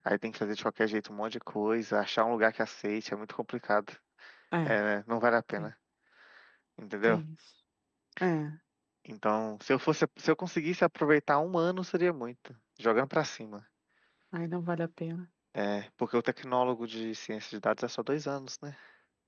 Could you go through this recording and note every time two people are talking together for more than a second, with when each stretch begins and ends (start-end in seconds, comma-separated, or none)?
none